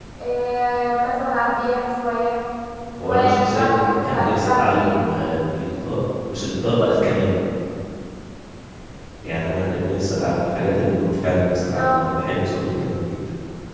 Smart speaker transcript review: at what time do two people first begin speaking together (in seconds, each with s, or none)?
3.0 s